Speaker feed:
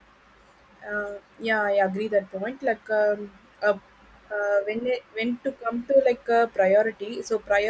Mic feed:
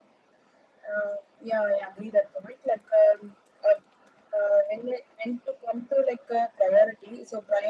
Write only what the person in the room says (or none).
none